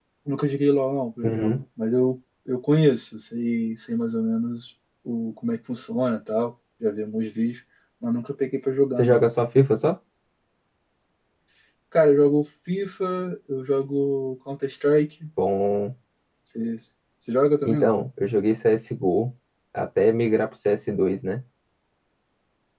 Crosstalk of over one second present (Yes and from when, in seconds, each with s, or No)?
No